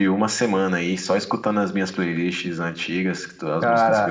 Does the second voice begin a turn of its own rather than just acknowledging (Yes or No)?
Yes